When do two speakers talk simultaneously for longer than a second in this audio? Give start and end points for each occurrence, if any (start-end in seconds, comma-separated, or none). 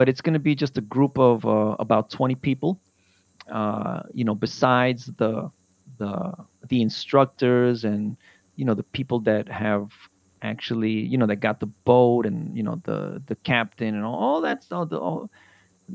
none